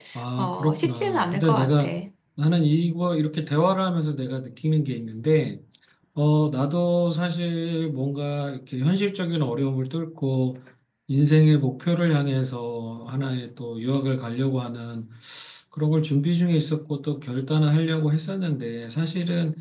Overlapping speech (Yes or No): Yes